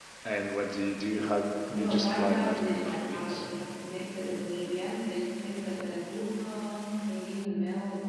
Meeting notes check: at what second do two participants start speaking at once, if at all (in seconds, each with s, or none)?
1.7 s